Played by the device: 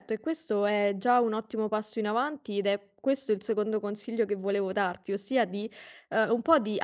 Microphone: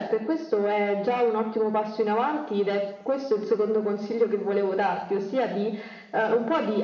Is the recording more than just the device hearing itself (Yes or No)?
No